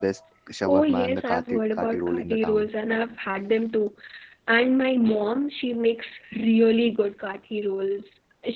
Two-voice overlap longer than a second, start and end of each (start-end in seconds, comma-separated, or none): 0.7-2.7